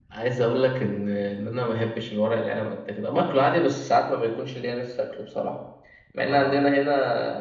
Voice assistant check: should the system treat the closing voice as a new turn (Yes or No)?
No